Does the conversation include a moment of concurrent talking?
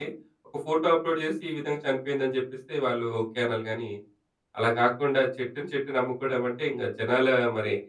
No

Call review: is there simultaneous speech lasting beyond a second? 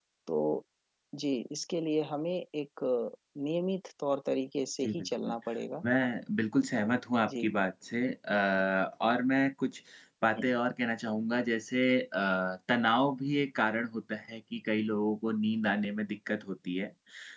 No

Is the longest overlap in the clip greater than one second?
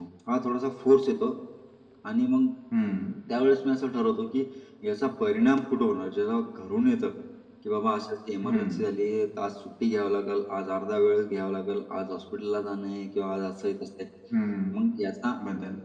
No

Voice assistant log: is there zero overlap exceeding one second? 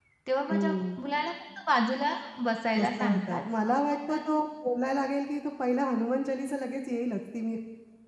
No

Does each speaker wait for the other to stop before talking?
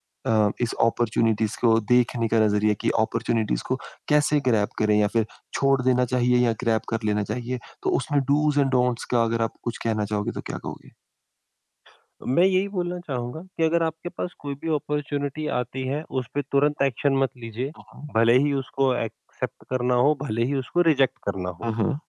Yes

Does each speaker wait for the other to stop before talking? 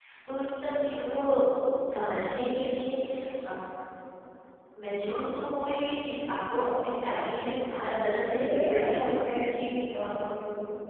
No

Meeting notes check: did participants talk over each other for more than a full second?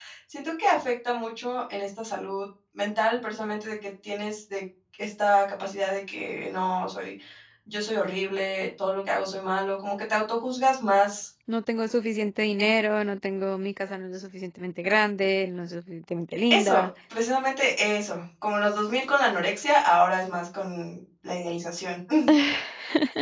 No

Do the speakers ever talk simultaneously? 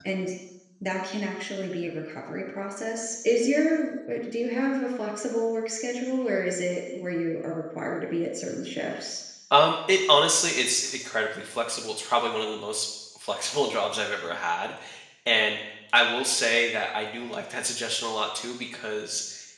No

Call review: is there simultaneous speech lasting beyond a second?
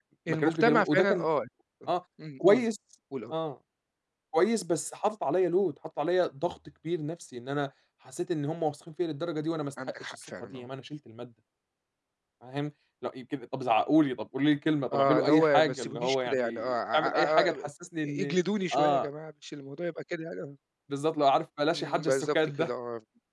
Yes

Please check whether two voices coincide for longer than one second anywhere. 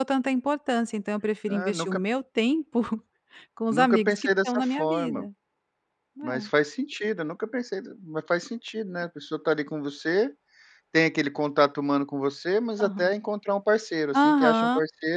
Yes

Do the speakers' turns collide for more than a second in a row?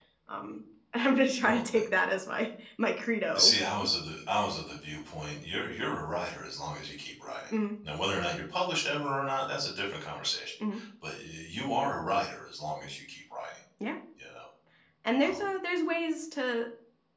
No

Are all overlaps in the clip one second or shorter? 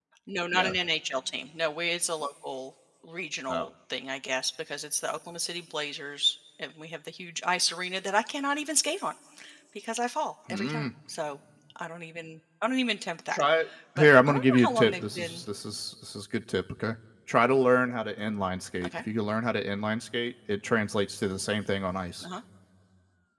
No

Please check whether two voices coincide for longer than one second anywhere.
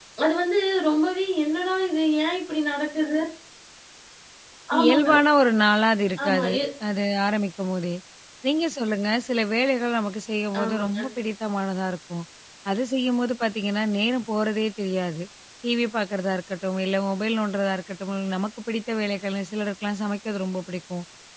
No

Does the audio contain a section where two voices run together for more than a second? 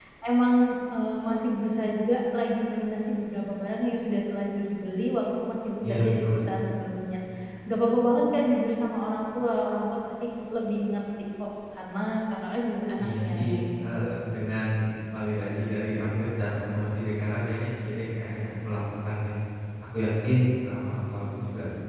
Yes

